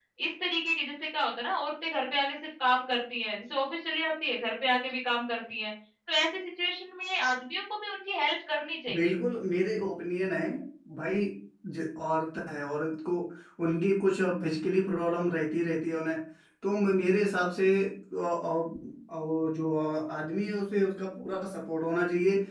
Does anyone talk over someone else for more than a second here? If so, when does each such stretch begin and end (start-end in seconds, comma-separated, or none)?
none